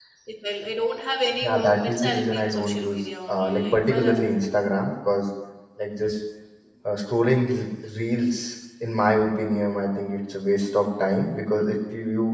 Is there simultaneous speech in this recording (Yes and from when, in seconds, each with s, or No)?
Yes, from 1.4 s